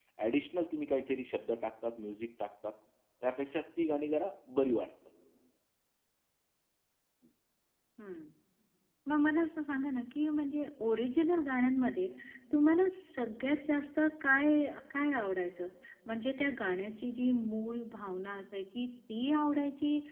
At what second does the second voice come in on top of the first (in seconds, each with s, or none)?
none